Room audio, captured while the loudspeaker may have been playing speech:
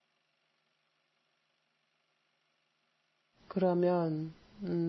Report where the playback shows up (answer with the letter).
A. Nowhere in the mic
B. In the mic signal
A